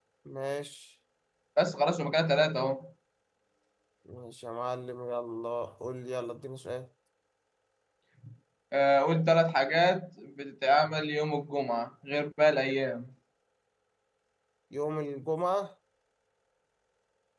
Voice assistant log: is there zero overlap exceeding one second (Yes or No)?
Yes